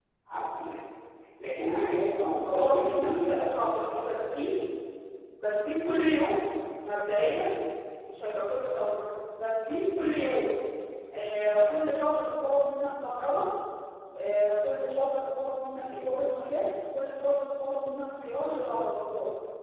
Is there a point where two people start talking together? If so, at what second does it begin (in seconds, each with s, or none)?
2.5 s